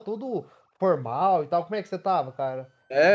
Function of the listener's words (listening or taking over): taking over